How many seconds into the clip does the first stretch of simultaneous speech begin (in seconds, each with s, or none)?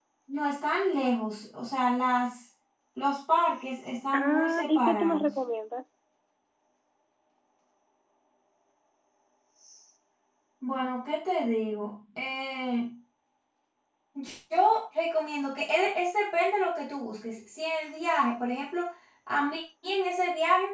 4.1 s